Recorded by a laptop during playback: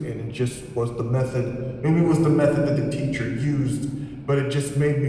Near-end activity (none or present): none